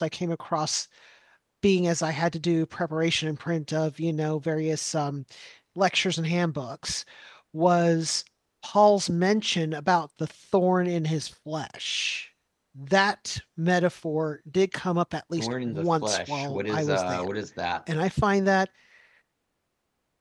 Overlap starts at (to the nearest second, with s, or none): 15 s